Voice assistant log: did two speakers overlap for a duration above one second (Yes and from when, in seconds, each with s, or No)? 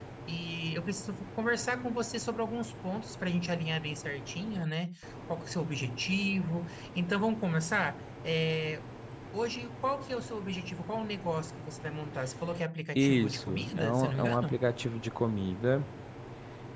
Yes, from 12.9 s